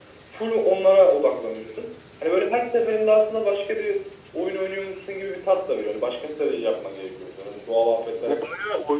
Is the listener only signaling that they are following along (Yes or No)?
No